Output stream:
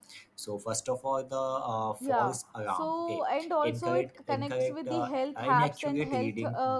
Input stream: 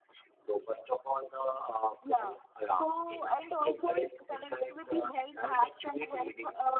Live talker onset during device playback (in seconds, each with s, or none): none